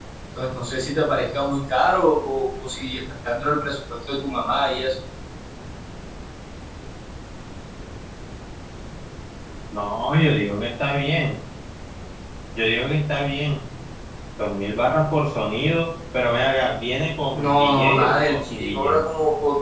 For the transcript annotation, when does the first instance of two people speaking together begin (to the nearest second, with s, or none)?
17 s